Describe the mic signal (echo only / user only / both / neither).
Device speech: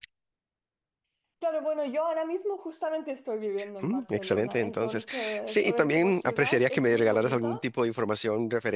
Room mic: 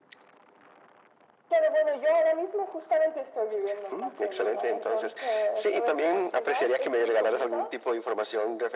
echo only